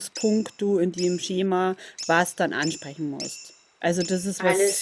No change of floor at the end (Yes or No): Yes